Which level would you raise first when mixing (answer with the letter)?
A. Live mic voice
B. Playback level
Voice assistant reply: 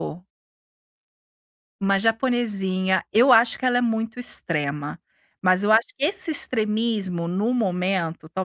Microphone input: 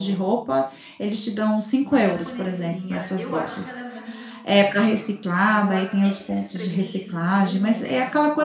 B